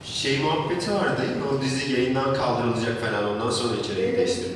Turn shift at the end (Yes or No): Yes